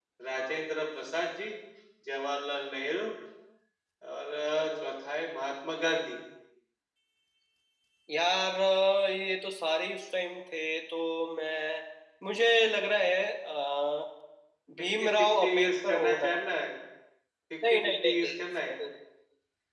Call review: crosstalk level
present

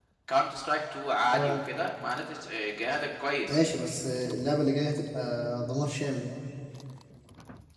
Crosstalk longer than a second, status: none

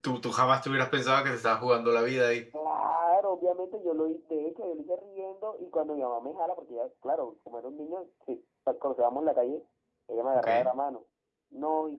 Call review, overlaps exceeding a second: none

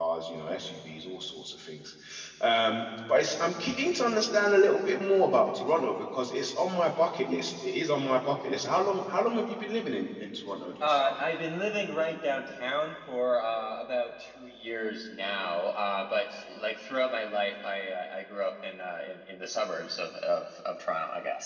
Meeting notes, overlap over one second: none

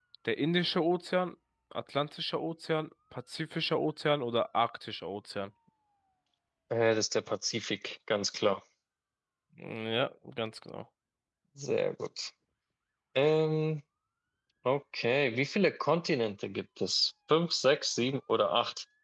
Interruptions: none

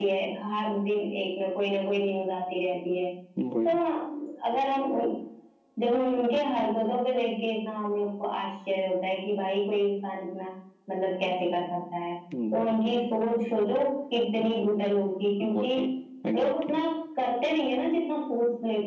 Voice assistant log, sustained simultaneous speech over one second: none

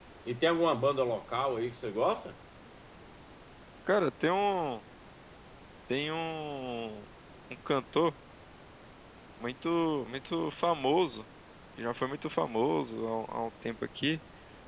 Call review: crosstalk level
none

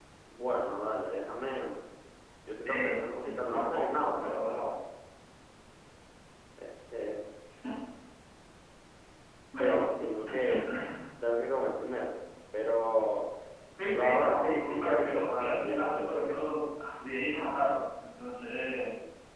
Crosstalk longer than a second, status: present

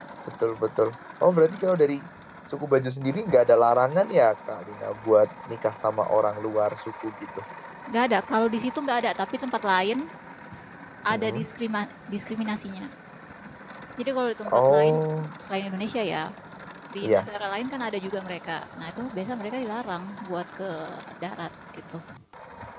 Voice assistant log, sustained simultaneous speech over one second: none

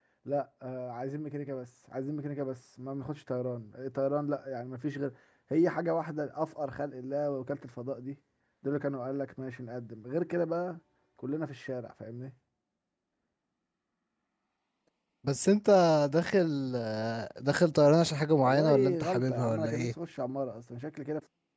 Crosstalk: present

